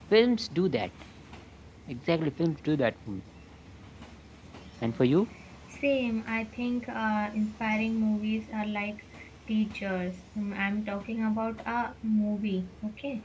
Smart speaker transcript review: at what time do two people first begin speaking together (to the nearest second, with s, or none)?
none